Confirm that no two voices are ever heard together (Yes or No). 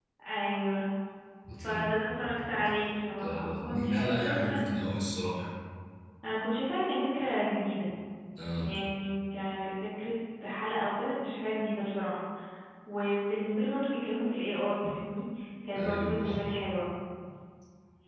No